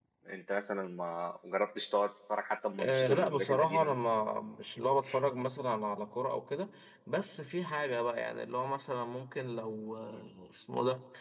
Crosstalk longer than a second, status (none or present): present